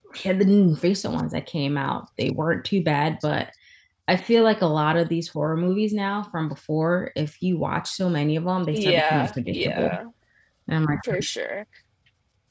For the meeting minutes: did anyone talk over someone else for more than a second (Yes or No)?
Yes